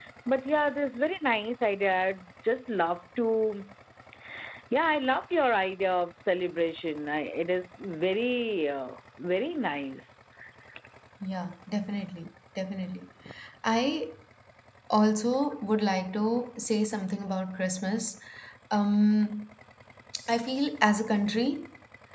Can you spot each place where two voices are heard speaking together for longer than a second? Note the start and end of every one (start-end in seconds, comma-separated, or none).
none